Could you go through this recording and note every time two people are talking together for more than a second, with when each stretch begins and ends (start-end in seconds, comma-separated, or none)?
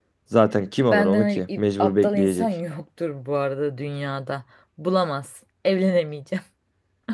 0.9-2.5